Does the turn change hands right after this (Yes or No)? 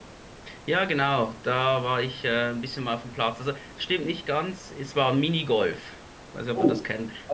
Yes